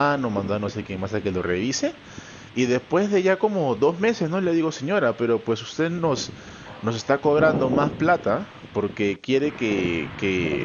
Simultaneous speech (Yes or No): No